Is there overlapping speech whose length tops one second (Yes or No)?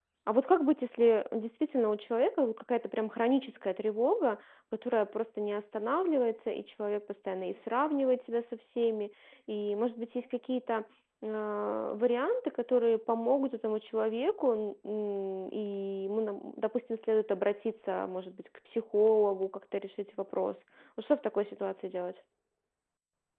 No